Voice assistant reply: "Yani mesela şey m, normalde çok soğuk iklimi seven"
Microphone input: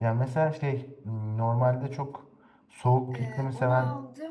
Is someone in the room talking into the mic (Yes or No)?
Yes